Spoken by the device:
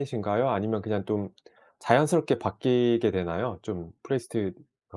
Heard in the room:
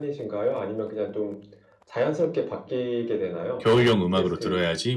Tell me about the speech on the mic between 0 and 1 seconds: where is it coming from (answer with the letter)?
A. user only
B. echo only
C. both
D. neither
B